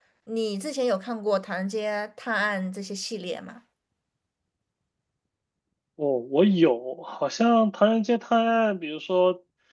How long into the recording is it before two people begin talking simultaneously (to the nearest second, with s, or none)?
none